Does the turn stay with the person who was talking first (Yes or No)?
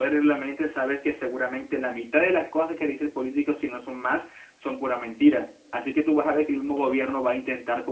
Yes